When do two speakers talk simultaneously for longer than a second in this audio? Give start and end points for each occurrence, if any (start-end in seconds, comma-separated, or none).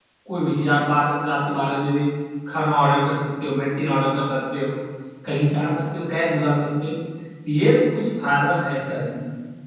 none